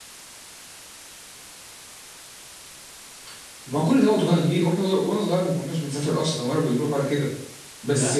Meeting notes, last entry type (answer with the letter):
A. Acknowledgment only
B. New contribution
A